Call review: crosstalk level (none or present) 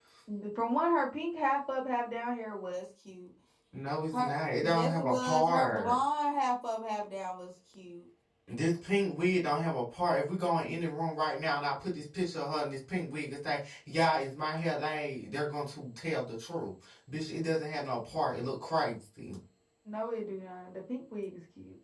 present